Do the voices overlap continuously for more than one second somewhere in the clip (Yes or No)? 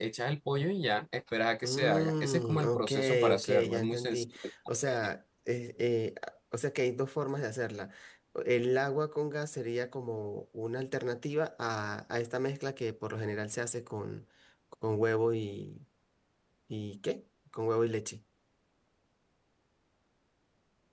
Yes